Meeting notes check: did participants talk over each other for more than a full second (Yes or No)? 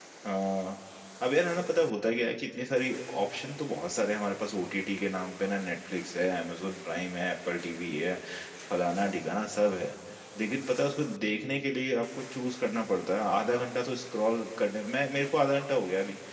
No